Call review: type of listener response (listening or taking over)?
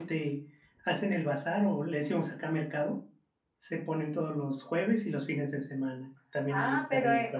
taking over